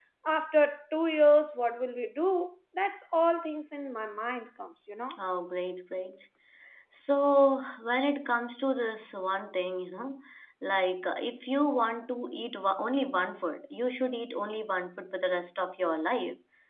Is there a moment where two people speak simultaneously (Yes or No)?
No